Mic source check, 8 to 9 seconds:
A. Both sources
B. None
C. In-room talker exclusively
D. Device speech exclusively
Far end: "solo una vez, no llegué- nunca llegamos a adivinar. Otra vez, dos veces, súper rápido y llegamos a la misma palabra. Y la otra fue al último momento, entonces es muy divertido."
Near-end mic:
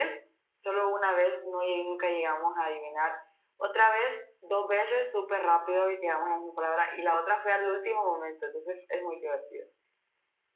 D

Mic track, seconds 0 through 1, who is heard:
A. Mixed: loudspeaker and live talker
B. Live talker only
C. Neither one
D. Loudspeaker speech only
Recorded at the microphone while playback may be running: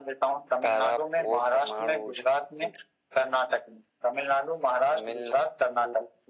D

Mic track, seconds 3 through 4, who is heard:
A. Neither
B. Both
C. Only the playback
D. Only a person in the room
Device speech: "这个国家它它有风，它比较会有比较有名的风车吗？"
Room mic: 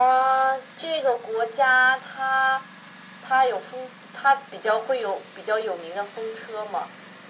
C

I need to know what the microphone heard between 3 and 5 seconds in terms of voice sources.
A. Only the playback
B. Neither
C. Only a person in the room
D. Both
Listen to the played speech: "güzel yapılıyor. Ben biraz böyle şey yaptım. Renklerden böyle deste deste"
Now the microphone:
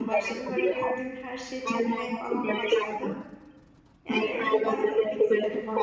D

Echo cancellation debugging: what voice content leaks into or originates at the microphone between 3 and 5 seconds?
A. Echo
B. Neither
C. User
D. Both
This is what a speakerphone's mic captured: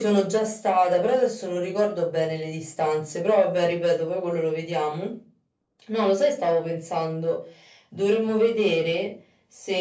A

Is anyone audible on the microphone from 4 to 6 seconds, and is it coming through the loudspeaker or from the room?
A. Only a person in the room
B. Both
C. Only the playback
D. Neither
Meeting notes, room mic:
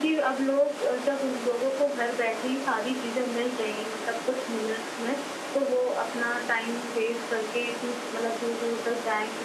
C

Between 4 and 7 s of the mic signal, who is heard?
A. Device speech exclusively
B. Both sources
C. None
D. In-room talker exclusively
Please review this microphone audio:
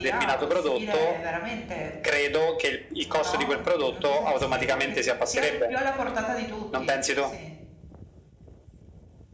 B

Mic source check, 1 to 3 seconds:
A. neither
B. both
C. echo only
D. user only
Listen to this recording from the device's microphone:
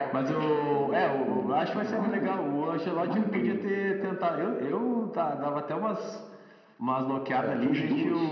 C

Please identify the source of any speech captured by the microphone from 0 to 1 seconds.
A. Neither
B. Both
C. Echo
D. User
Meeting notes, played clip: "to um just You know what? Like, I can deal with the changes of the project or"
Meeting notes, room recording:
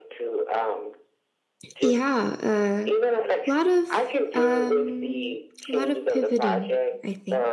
C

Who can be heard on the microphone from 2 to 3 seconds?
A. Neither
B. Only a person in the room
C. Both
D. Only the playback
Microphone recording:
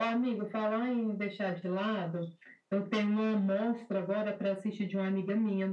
D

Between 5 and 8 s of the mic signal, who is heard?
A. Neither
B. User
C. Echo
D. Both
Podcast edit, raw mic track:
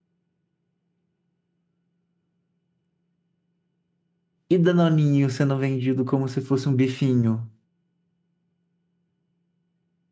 B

